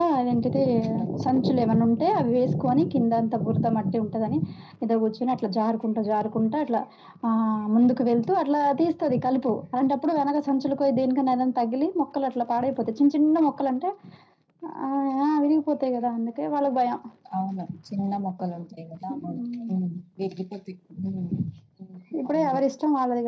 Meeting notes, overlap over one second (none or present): none